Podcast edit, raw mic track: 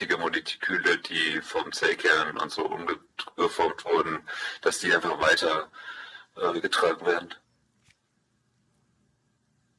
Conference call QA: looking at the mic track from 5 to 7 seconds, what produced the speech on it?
echo only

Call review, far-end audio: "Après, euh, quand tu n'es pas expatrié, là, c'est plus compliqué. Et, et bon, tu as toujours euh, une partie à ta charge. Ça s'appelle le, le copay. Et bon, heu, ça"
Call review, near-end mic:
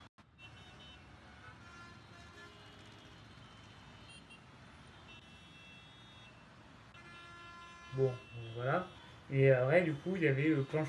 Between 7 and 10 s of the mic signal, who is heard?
user only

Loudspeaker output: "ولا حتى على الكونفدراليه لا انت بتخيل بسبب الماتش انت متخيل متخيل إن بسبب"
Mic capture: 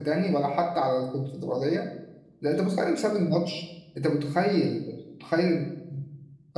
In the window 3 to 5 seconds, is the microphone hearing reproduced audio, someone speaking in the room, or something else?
echo only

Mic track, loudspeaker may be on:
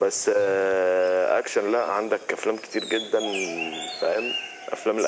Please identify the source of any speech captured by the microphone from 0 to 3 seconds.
echo only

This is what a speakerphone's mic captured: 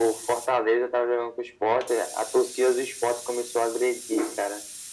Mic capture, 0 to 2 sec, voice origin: echo only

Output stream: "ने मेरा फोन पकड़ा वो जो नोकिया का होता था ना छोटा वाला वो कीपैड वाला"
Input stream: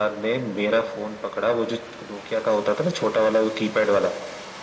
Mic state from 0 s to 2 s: echo only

